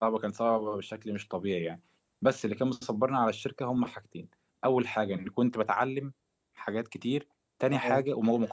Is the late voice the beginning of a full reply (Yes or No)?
No